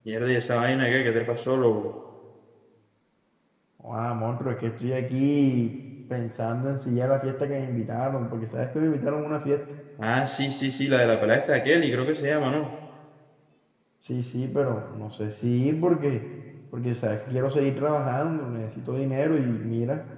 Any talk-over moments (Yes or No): No